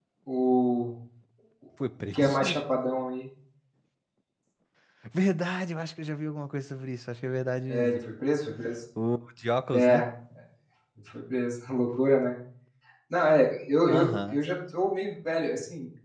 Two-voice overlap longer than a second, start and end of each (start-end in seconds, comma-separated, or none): none